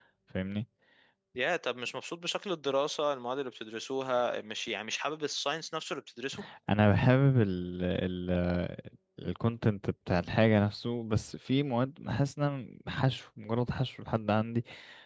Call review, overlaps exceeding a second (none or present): none